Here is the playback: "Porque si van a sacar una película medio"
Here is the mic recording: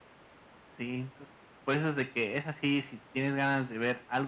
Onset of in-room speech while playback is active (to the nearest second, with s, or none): 1 s